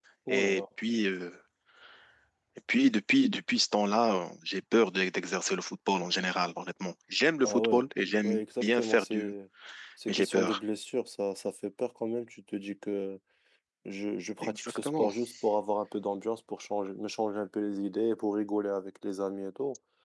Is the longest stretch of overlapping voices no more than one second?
No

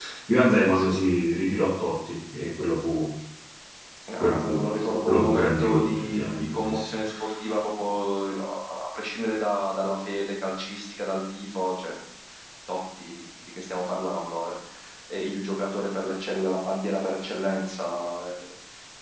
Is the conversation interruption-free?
No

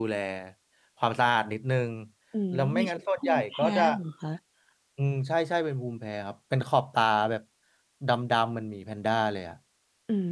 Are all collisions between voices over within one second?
No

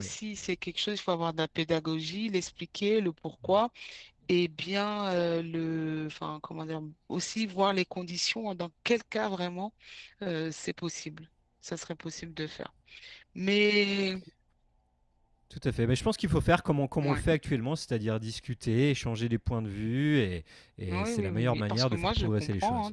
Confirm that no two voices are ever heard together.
No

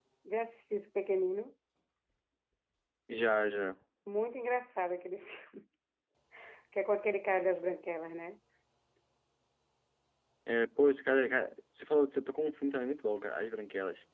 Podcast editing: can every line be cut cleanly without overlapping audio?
Yes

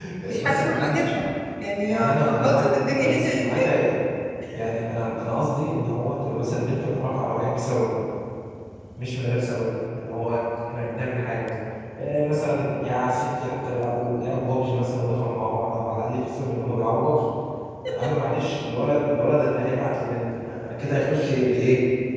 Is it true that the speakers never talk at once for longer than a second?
No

